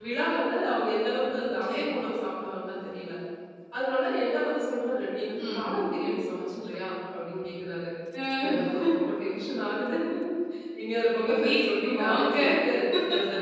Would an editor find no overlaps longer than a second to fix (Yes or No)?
No